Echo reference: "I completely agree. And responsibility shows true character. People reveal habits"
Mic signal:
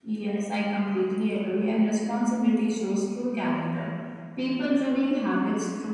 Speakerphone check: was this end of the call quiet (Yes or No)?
Yes